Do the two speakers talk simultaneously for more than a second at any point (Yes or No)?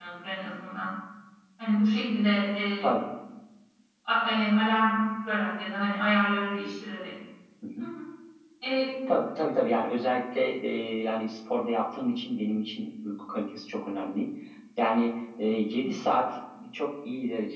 No